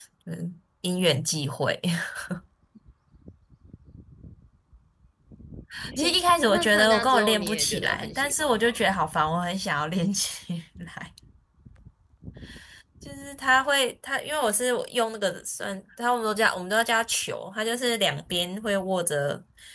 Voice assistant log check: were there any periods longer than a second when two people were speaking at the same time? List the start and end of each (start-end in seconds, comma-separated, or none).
6.5-8.8